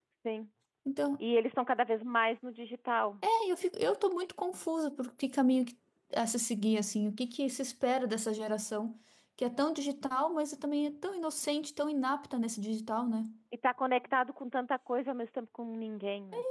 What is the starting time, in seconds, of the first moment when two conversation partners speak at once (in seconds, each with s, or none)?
none